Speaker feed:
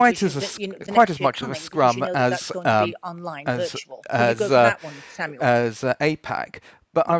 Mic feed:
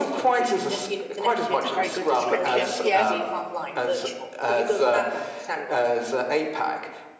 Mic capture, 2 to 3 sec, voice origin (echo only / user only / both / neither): both